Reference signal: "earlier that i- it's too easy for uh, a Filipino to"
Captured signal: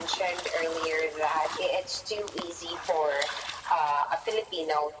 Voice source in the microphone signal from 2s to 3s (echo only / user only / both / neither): echo only